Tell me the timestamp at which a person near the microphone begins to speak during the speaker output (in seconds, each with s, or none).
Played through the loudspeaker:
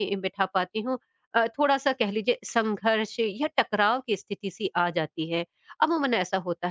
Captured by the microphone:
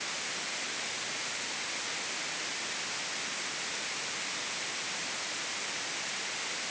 none